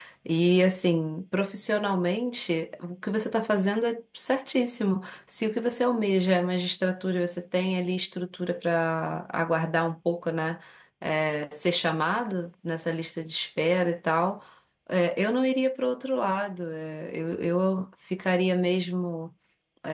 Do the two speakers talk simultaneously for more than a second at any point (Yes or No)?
No